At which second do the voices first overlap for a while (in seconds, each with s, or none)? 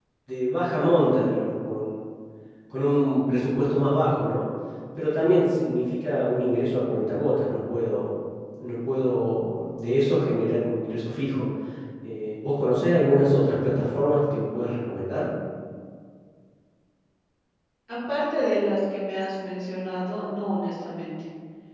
none